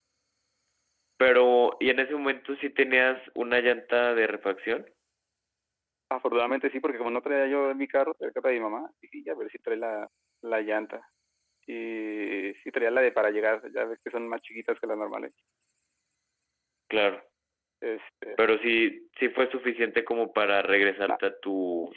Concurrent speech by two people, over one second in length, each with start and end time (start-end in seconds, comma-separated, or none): none